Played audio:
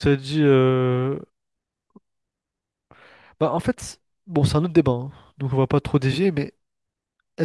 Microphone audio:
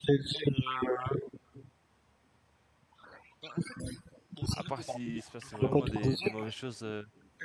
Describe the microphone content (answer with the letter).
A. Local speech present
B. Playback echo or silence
A